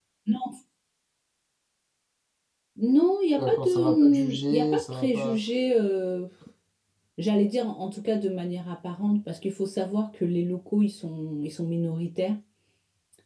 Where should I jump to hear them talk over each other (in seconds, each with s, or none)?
3.4 s